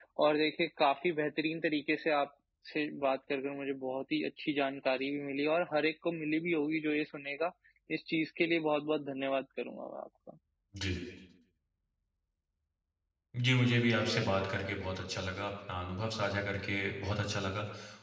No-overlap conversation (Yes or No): Yes